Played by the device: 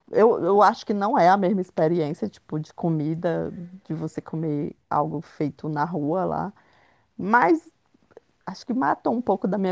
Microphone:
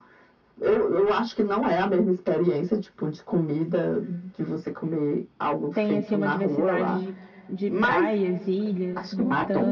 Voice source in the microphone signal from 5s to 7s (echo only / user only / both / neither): both